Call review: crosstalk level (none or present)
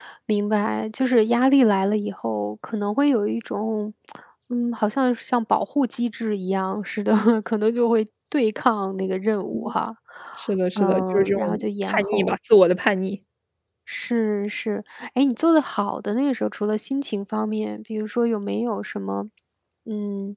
present